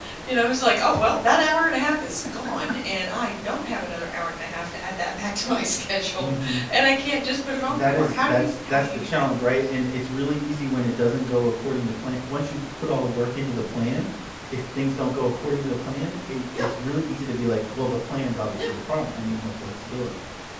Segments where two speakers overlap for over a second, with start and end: 7.6-9.3

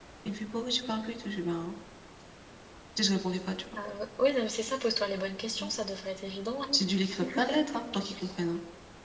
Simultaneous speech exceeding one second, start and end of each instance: none

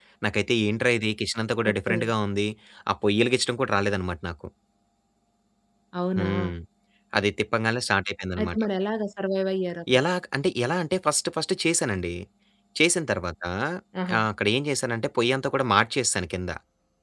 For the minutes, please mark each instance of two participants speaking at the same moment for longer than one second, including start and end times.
none

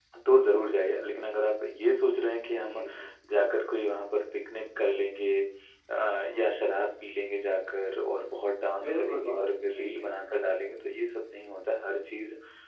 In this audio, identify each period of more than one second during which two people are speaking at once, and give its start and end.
8.8-10.0

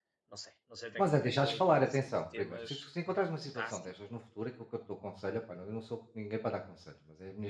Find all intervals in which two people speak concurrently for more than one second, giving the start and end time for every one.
1.0-2.9

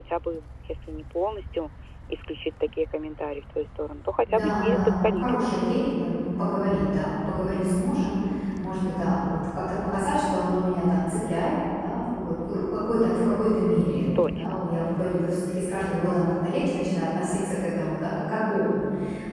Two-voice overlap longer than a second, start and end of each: 4.3-5.6

